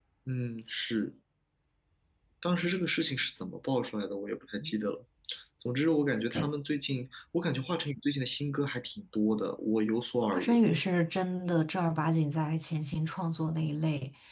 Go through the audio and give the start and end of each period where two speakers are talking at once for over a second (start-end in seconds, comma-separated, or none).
none